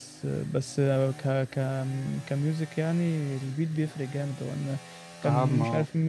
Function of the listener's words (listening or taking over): listening